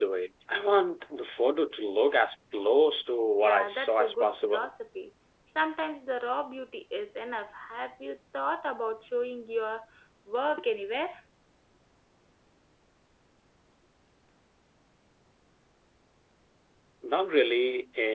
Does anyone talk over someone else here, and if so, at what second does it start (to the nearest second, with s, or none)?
3 s